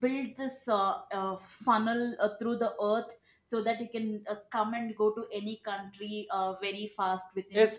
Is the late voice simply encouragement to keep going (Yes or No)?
No